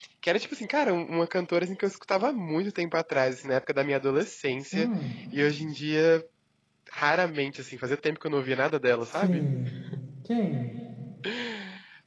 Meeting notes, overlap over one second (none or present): none